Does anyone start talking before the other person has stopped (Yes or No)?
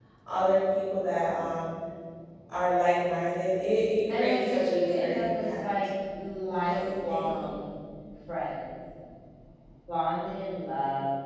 Yes